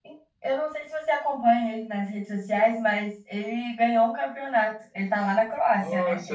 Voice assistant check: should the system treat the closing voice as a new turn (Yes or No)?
Yes